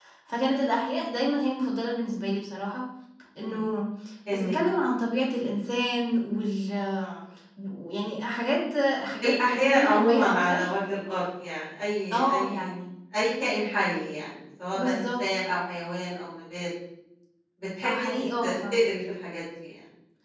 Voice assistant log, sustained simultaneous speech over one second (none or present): present